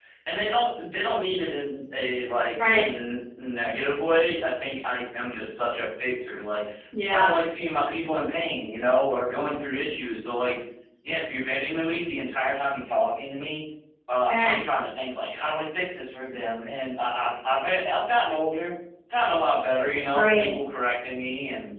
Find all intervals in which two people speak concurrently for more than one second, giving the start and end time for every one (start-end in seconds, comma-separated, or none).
none